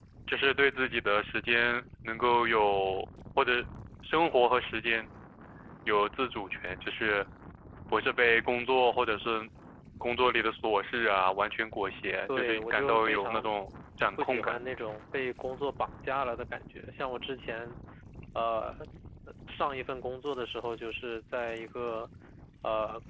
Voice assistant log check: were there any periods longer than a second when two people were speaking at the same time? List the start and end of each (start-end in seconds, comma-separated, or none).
12.3-13.5